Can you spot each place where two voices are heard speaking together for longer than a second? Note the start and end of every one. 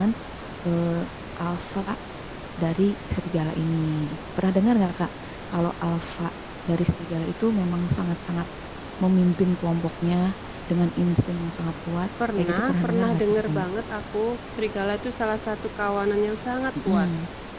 12.4-13.6

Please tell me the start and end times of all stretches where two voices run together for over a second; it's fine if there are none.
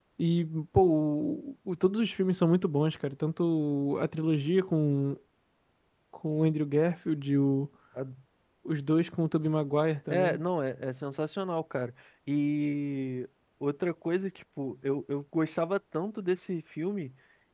none

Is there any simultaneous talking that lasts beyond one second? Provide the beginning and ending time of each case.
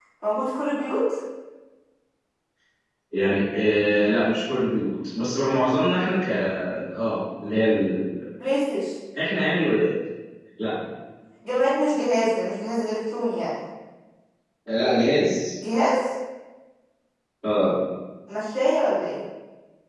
none

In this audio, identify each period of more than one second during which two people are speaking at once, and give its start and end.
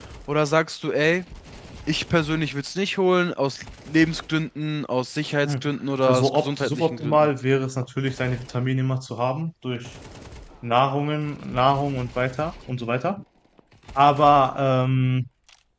6.1-7.3

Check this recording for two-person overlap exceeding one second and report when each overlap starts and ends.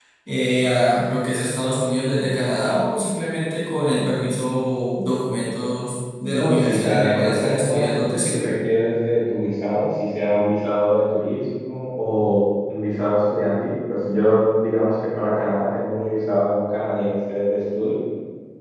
6.3-8.5

